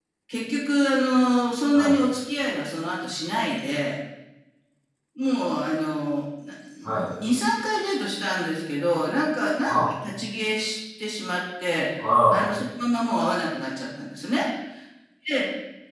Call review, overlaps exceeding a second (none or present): none